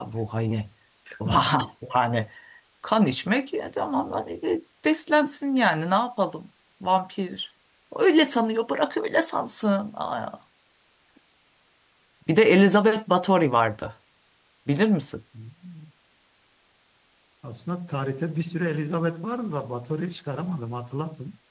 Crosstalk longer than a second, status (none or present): none